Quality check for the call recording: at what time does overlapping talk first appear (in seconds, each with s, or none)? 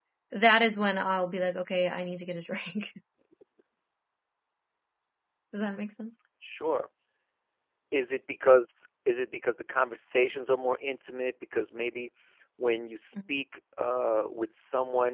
none